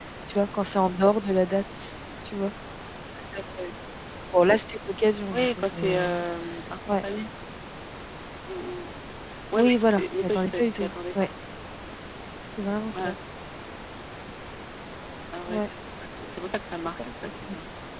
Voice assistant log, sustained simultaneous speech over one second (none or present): present